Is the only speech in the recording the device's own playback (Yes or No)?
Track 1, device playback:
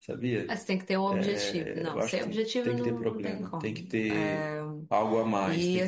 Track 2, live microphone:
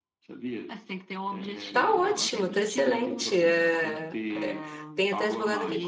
No